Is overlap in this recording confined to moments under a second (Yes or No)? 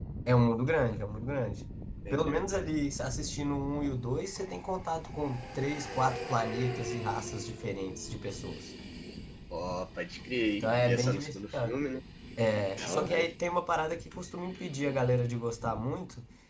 No